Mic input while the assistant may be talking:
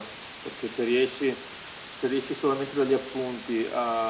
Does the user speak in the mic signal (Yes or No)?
No